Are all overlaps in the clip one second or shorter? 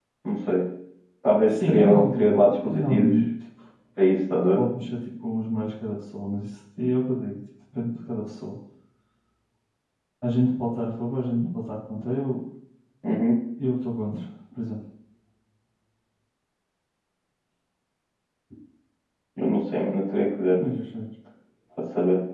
No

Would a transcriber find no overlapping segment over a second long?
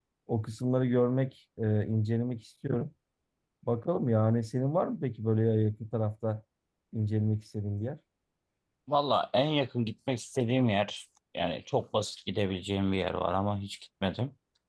Yes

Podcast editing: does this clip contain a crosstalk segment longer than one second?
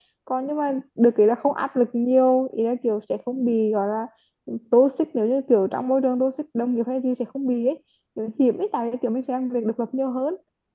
No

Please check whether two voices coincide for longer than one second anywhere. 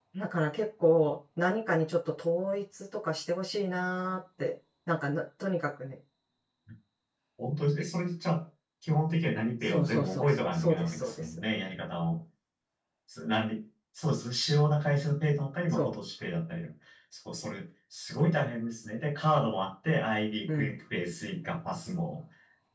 Yes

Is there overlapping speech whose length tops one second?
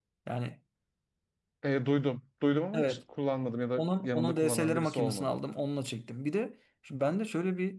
Yes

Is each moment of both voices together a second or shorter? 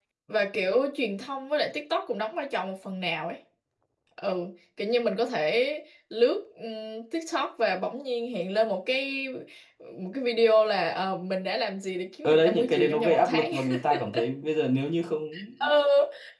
No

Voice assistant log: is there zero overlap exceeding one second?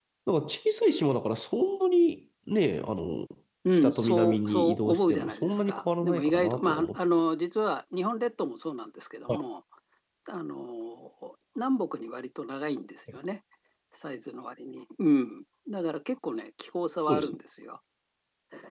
No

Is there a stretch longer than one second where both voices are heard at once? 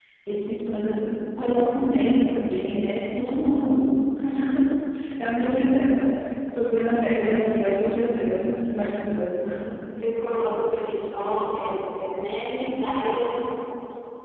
No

